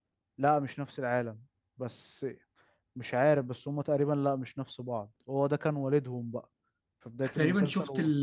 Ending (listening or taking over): taking over